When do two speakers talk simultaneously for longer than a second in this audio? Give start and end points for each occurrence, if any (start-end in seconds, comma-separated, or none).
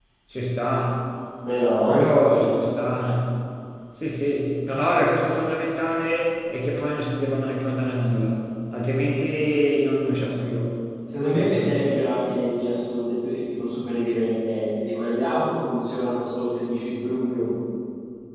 none